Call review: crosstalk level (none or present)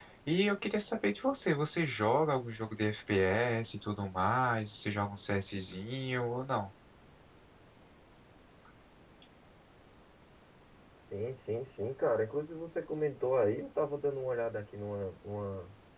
none